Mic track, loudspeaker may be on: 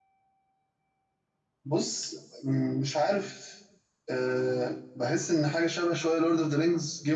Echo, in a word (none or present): none